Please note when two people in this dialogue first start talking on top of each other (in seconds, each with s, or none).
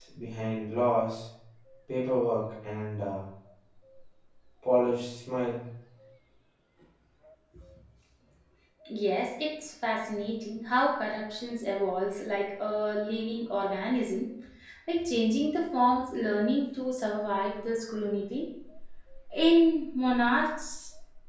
none